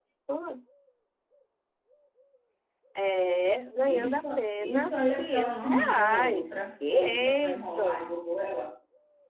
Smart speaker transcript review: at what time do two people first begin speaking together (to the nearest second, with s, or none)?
4 s